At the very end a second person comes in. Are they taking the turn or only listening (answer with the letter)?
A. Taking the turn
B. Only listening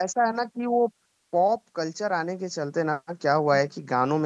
B